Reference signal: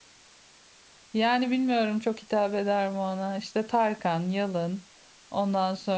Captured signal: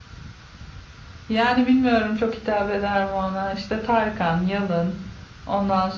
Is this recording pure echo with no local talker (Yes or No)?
Yes